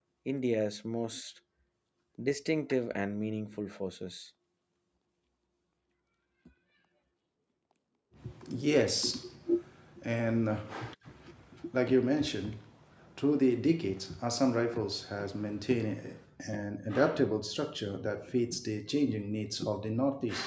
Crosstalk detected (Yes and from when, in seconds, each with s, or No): No